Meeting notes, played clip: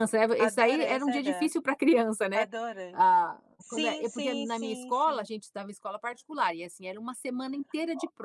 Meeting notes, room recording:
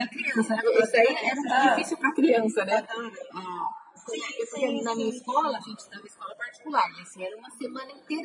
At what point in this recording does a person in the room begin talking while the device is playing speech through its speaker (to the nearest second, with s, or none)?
1 s